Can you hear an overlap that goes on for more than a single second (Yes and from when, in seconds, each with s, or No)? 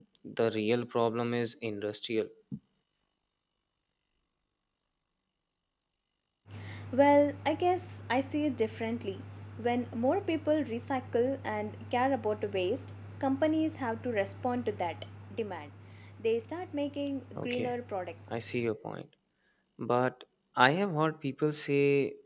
No